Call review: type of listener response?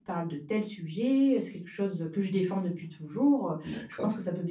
listening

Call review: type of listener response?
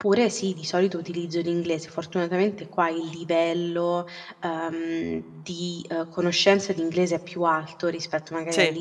listening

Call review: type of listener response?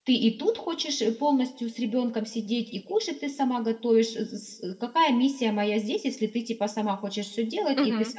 taking over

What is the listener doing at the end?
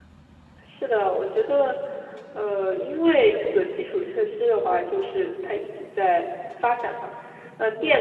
listening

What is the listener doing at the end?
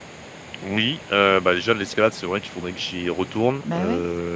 listening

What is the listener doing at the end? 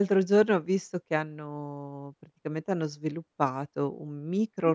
listening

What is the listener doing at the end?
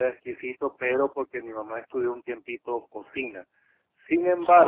listening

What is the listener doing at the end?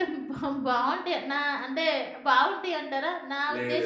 listening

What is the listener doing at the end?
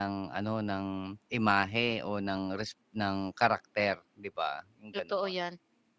taking over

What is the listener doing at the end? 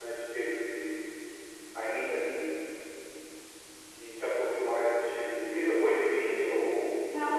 taking over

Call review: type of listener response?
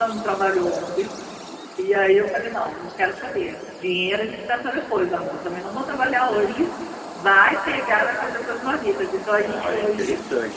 taking over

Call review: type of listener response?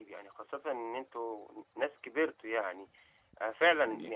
listening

